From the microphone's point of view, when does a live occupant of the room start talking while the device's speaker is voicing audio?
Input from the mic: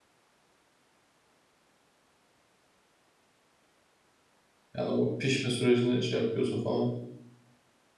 4.8 s

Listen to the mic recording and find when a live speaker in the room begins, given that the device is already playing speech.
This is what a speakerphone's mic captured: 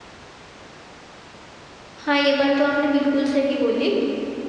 1.9 s

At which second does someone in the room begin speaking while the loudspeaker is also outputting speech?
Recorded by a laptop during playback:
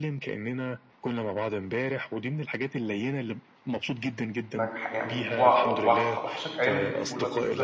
4.6 s

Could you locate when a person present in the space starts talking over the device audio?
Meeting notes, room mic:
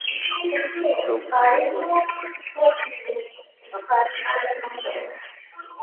1.1 s

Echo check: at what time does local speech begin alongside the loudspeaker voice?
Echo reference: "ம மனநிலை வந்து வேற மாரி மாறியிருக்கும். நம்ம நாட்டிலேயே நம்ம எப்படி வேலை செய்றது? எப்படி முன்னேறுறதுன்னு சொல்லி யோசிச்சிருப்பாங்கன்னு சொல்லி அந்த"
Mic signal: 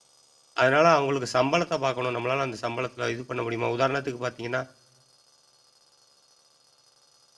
0.6 s

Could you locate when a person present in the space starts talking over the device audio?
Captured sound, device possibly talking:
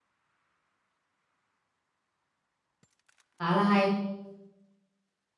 3.4 s

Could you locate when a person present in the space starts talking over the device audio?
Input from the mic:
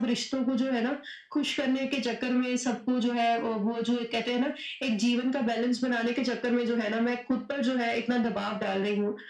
none

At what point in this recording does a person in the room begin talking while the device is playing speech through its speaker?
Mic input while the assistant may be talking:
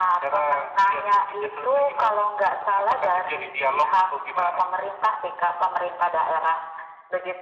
none

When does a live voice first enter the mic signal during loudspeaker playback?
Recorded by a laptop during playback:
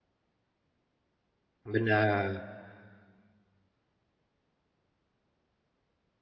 1.7 s

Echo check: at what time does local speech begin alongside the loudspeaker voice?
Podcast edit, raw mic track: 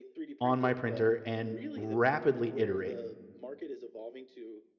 0.4 s

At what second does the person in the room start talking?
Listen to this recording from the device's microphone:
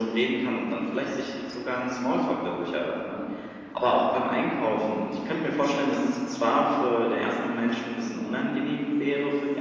none

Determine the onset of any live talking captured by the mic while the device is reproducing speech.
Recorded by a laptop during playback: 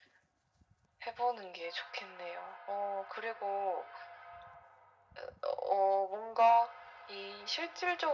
none

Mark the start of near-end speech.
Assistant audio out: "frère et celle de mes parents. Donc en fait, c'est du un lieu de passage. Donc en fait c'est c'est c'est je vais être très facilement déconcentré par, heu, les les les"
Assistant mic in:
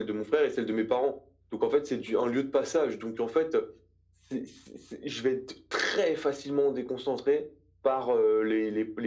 none

